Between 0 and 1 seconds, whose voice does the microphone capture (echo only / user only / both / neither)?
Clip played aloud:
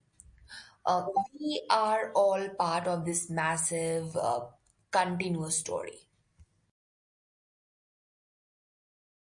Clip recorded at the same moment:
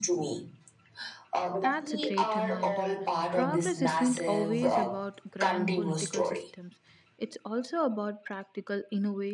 echo only